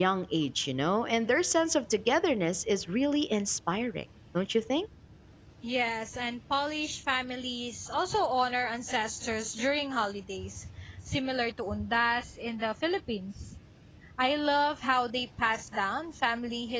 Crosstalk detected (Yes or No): No